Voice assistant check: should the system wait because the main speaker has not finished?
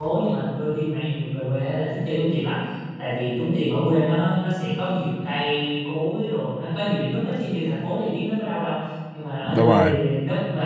Yes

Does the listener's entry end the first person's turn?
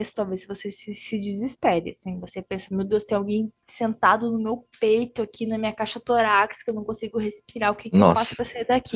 No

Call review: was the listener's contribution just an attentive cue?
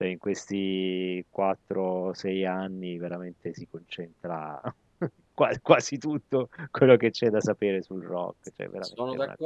No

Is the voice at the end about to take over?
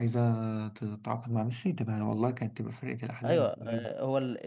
Yes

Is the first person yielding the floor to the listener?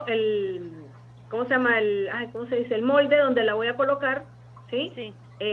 No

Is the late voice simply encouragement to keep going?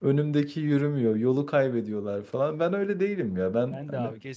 No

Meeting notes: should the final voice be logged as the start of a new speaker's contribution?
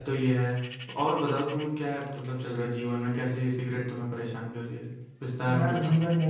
Yes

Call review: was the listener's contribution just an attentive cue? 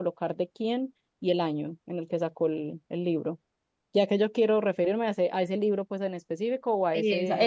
No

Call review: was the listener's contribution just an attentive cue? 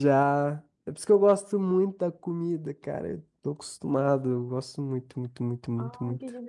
No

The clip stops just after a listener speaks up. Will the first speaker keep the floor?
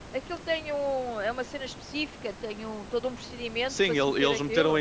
No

